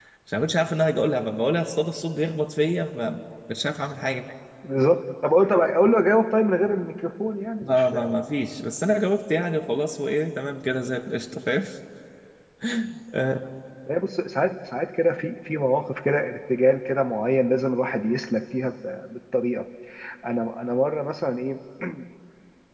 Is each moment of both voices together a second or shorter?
Yes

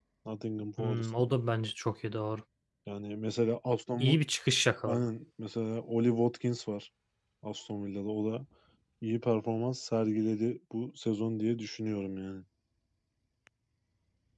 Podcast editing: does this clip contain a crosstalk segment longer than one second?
No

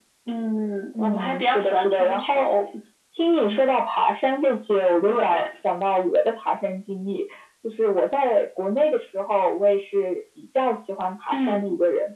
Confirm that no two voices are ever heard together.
No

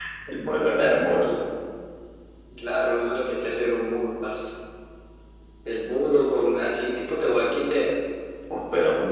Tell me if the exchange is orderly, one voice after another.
Yes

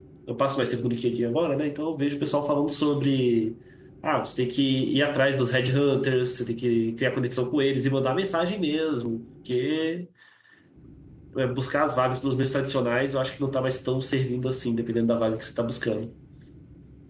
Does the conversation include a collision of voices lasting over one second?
No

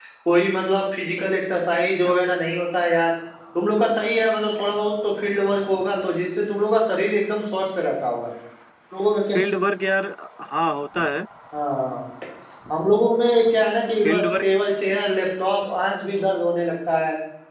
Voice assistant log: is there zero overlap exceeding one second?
Yes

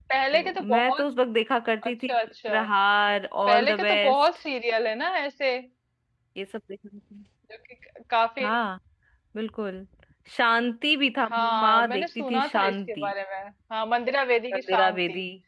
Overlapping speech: Yes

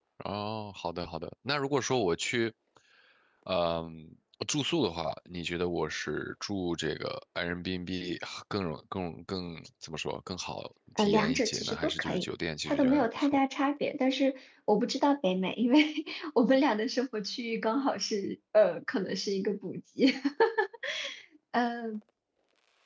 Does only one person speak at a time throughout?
No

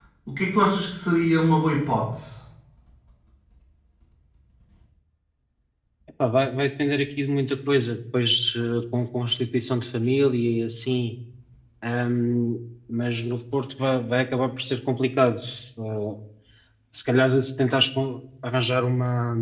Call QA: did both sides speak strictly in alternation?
Yes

